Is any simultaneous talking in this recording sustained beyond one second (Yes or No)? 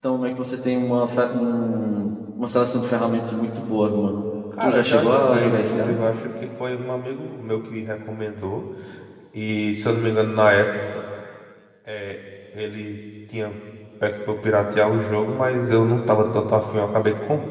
Yes